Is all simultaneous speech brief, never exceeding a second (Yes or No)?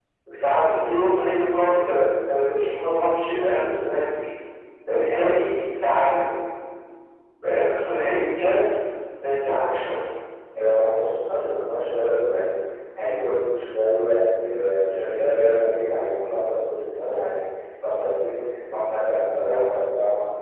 Yes